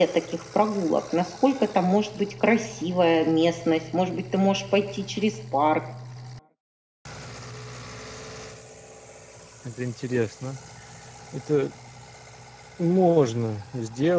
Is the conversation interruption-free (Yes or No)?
Yes